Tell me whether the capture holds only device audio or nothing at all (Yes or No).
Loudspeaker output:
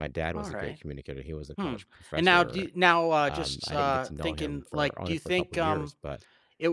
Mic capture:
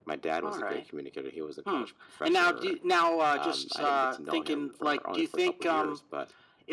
Yes